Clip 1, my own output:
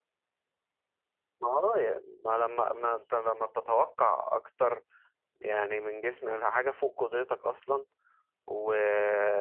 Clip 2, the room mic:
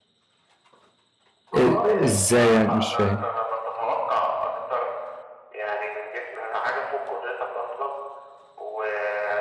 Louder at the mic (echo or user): user